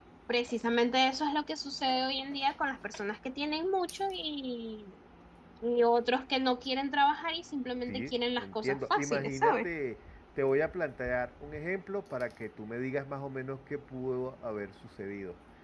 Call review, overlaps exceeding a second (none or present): present